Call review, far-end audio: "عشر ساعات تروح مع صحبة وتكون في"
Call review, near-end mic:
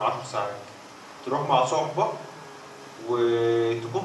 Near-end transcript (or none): none